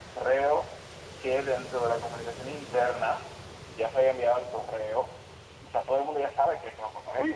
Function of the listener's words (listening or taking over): taking over